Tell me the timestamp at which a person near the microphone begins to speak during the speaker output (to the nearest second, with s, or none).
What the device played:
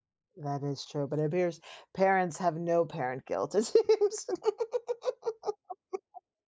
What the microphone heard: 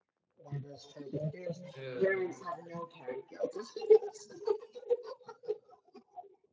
2 s